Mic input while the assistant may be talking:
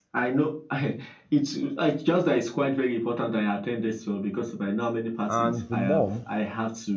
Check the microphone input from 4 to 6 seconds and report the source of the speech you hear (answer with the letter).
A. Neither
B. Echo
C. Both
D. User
C